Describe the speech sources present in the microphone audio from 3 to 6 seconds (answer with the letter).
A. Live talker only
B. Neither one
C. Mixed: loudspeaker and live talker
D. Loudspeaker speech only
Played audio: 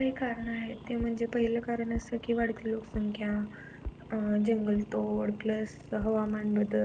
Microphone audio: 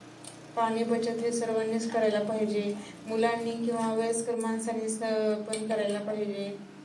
A